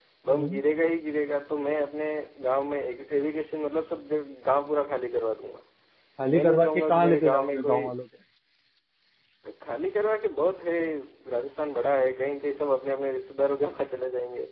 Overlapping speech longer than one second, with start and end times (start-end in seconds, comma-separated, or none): 6.3-7.8